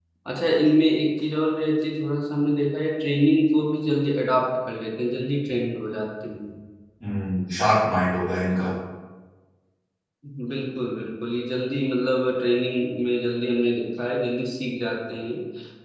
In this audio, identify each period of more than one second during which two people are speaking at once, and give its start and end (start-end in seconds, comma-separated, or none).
none